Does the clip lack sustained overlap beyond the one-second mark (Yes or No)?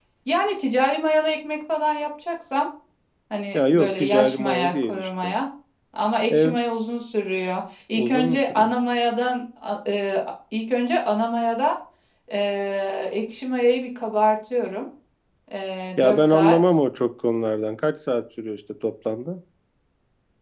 No